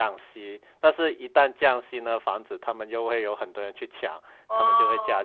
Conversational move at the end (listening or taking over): taking over